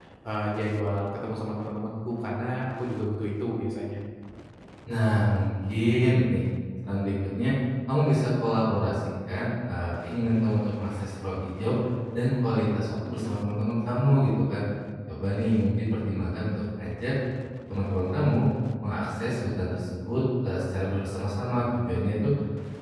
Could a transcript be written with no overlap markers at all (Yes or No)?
Yes